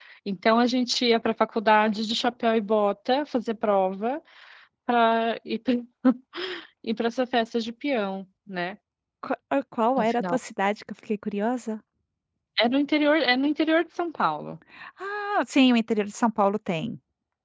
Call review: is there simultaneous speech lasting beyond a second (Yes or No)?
No